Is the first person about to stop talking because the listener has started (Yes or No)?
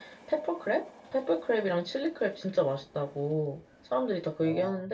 No